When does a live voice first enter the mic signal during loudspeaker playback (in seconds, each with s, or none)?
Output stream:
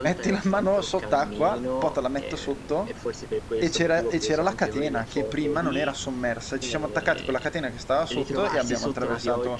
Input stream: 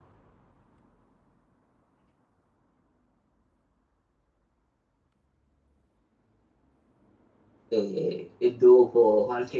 7.7 s